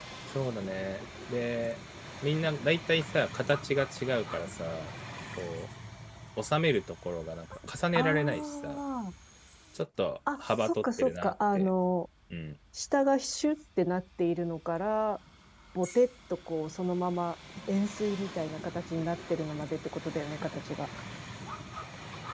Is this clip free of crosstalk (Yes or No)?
No